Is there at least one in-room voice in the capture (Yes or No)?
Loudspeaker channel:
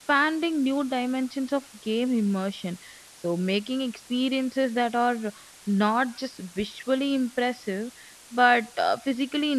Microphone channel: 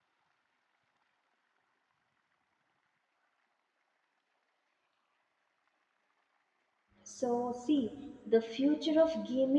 Yes